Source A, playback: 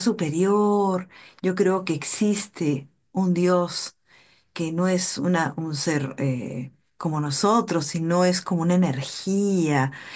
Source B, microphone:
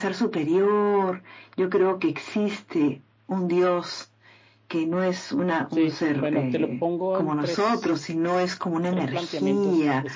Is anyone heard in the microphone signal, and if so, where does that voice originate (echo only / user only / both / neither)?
both